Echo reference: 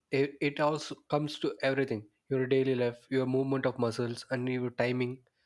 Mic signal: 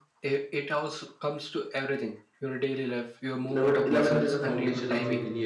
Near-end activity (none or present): present